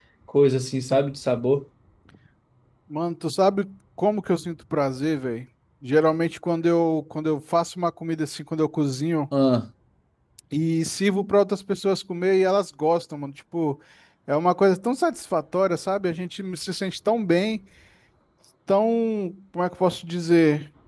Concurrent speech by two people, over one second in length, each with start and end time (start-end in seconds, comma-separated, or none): none